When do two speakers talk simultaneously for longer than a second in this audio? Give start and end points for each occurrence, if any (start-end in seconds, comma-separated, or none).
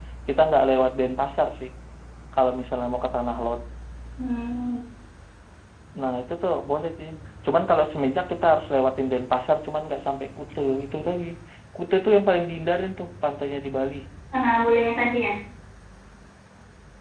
none